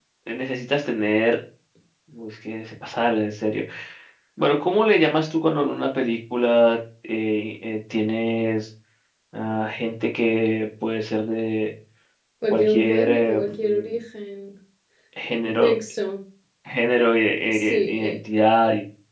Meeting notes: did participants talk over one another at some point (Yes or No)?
Yes